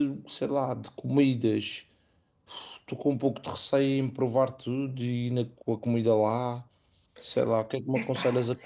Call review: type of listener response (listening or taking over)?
listening